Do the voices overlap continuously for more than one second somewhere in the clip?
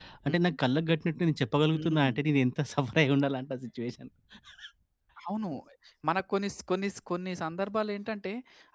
No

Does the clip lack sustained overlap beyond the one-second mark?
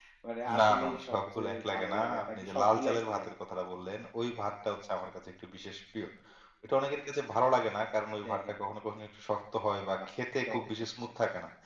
No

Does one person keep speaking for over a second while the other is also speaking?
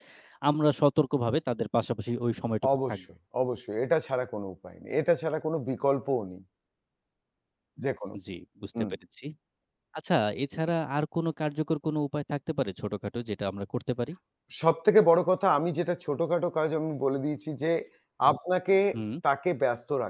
No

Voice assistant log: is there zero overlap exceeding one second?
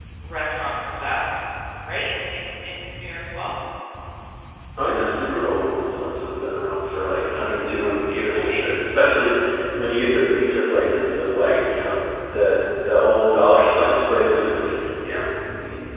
Yes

